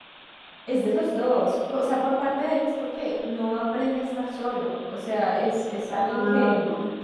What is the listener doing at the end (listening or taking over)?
listening